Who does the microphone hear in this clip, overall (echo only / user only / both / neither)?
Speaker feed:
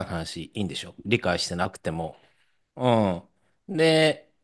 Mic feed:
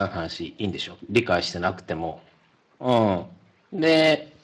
echo only